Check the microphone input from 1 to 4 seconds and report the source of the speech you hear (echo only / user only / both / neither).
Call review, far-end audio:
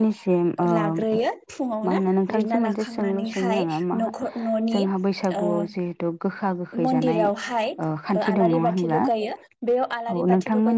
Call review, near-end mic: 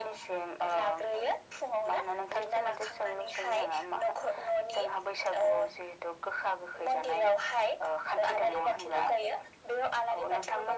echo only